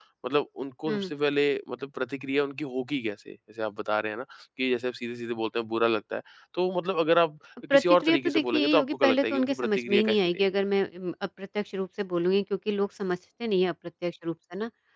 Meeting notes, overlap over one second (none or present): present